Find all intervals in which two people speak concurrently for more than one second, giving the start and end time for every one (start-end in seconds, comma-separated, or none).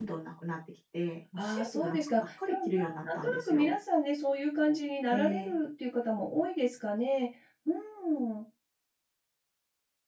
1.4-3.8